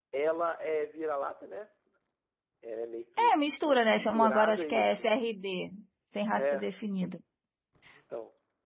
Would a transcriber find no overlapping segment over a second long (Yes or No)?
No